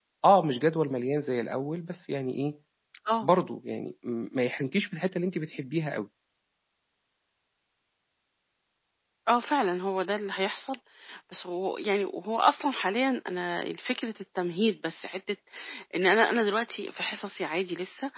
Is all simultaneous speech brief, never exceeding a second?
Yes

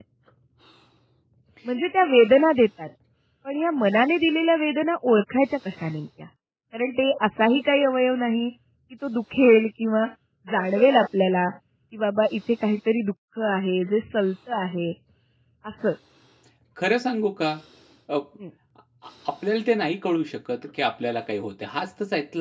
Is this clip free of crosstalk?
Yes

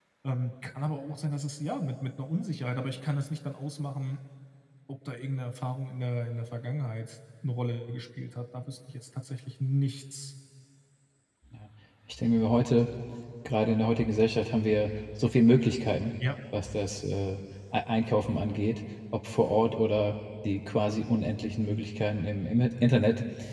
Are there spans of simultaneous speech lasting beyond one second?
No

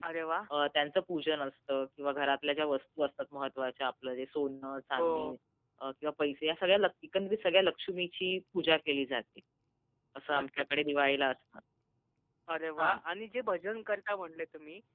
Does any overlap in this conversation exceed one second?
No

